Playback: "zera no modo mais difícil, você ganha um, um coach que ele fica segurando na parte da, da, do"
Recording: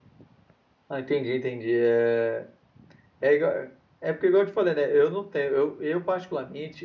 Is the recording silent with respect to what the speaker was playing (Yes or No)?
Yes